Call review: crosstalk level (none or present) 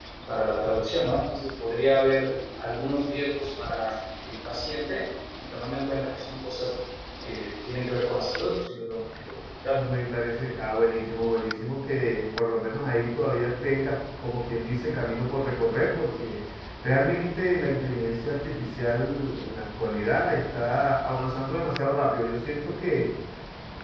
none